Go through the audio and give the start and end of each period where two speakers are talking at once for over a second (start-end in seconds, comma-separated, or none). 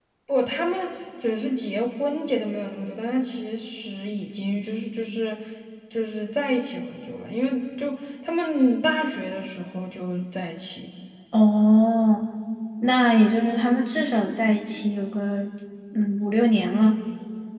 none